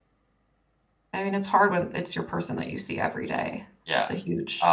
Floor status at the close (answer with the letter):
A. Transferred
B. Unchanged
A